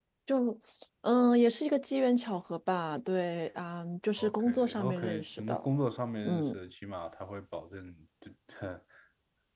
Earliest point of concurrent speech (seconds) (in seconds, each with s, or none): 4.2 s